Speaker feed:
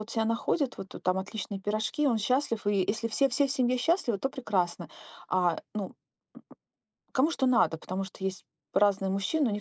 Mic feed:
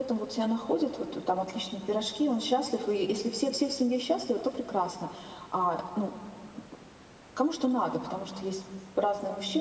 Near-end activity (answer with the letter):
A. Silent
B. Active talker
A